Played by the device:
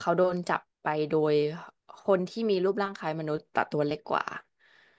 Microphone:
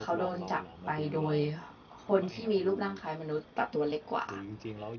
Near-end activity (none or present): present